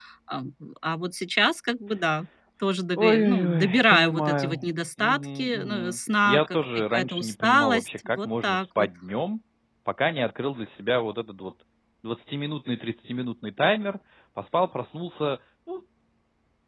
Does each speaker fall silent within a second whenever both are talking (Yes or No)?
No